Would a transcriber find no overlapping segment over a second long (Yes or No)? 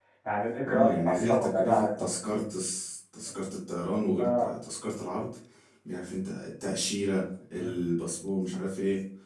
No